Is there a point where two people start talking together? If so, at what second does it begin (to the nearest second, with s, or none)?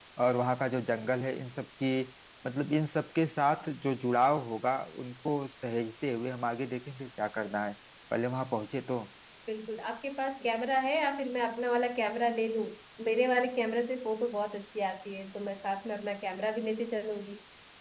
none